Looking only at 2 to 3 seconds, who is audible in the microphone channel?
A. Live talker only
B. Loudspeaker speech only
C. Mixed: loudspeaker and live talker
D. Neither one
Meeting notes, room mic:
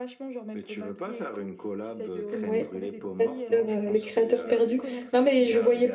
C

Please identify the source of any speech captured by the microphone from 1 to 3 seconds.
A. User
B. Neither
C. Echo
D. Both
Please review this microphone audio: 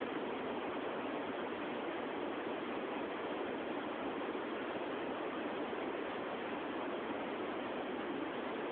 B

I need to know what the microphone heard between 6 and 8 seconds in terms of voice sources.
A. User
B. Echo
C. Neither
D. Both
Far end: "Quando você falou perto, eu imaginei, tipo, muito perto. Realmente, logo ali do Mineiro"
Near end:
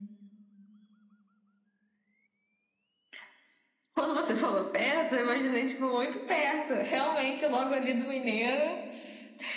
B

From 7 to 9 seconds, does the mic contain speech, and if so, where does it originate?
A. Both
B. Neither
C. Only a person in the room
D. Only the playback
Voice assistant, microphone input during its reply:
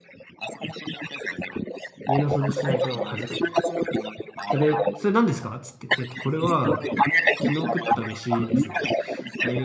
A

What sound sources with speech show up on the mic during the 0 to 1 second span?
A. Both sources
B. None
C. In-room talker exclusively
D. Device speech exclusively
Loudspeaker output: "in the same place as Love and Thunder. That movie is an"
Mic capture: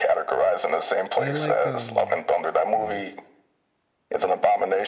D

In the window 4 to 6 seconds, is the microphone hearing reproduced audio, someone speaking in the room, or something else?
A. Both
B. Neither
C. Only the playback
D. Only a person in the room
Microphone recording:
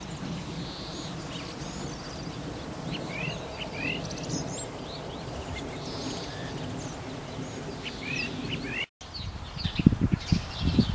B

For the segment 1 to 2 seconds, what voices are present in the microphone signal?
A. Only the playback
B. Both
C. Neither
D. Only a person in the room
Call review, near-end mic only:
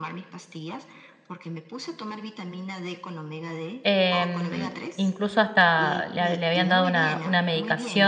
A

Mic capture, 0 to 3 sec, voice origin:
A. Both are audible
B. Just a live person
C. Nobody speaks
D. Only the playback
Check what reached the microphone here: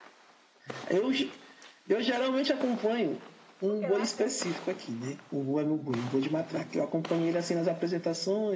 D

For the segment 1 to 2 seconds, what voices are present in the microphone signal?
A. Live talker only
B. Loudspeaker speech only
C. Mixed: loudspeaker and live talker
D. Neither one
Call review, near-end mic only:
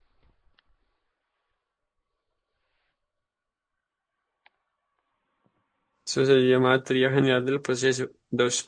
D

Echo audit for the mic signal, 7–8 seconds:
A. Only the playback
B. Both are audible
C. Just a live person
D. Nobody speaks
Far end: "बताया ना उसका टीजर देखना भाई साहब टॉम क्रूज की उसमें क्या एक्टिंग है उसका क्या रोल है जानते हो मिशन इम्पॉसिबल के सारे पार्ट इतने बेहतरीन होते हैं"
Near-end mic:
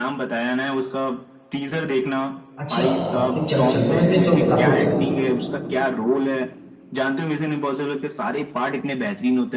A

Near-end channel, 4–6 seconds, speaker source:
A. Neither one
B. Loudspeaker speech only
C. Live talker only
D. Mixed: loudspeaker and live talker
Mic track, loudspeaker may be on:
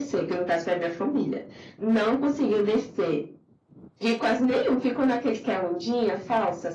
B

